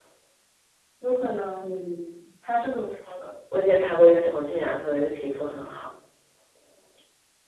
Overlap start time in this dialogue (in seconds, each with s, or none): none